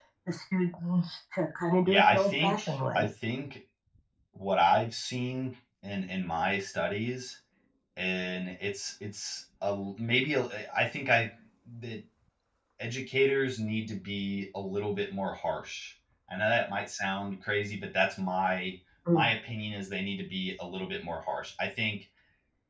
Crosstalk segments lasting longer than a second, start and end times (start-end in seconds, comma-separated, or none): 1.9-3.1